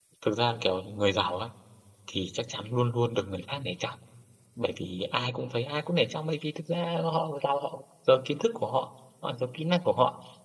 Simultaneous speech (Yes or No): No